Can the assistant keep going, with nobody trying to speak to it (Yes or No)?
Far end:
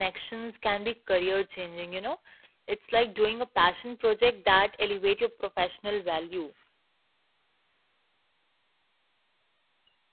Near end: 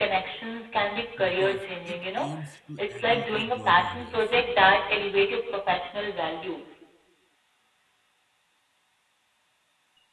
No